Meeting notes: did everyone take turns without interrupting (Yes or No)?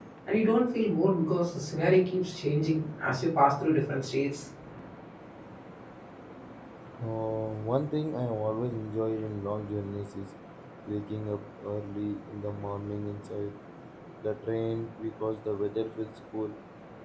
Yes